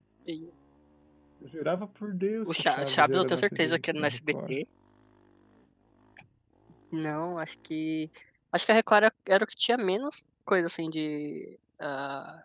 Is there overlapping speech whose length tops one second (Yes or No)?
Yes